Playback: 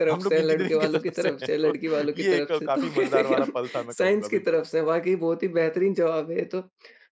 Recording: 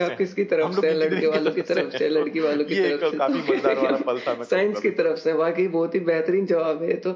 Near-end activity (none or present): none